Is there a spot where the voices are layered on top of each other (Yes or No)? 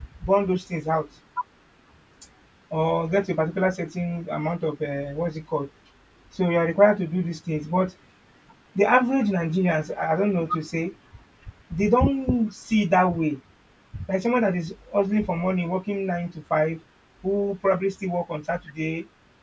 No